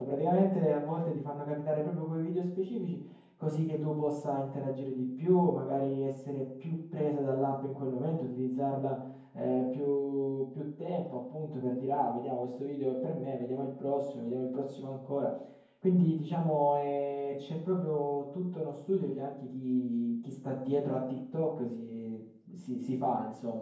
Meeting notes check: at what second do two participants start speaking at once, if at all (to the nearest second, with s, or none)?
none